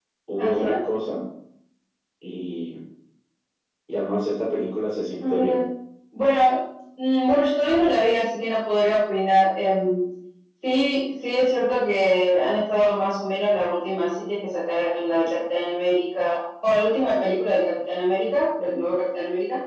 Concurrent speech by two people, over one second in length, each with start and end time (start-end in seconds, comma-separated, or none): none